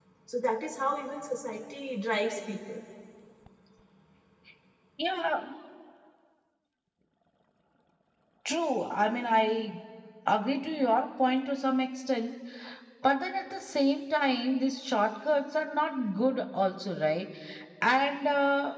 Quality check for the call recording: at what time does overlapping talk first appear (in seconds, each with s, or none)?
none